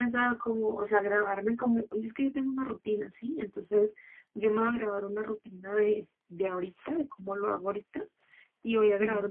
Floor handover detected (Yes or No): No